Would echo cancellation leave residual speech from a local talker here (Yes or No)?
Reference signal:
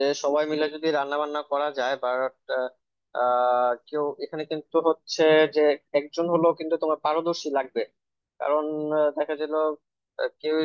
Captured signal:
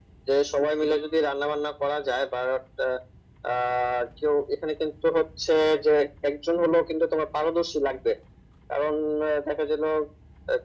No